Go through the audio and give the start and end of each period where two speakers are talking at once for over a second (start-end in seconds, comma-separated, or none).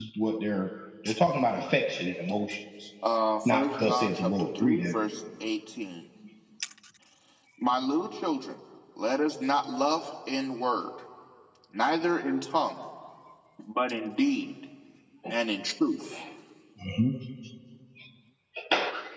3.5-4.9